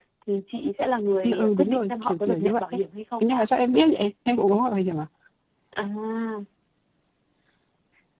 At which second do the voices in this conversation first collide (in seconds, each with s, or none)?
1.2 s